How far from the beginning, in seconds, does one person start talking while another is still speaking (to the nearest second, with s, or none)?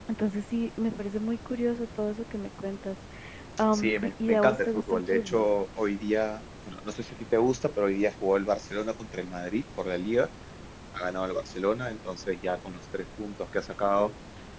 4 s